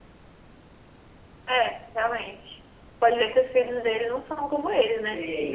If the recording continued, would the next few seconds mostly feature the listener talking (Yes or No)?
Yes